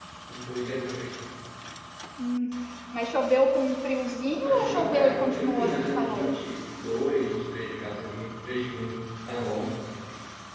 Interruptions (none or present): present